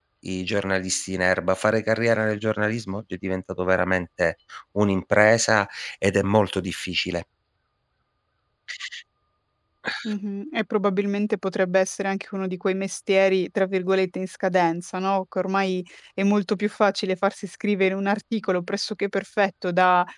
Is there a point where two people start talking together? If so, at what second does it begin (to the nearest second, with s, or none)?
none